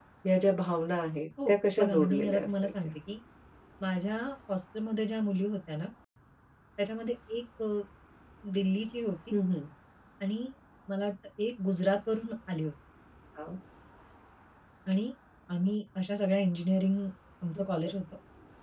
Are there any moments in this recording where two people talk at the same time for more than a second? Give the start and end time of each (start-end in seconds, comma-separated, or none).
1.5-2.9